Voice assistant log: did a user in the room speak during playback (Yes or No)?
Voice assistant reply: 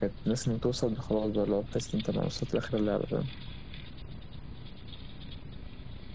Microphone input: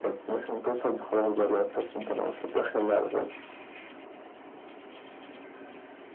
No